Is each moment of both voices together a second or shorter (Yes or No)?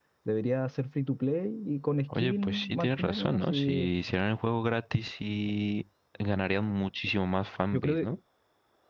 No